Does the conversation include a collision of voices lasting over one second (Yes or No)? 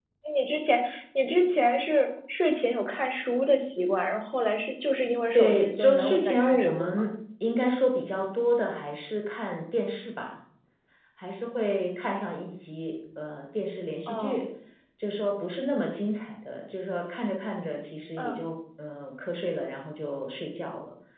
Yes